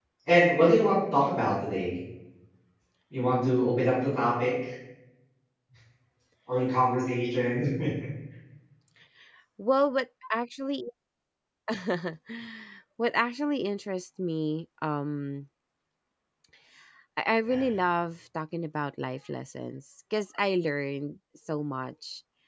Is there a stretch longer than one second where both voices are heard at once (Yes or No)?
No